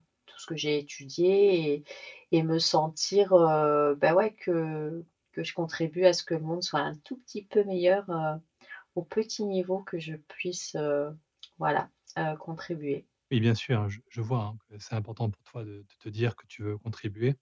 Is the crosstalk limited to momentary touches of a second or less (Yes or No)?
Yes